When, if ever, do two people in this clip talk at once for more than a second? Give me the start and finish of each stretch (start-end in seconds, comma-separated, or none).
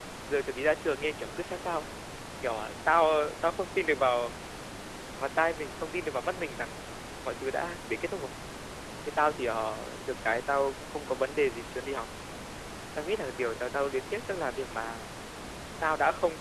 none